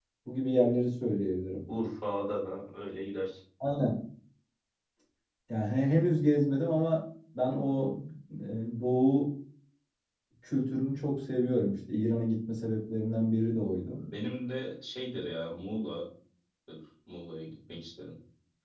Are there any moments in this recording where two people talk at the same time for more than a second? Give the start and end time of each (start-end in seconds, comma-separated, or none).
none